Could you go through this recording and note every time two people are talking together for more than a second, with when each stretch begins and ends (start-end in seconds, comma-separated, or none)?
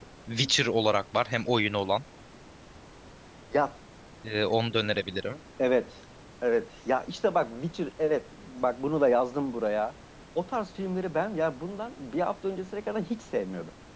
none